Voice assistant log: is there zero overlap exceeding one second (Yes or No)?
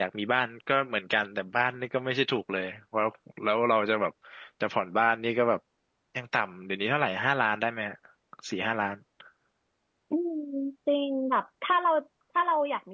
Yes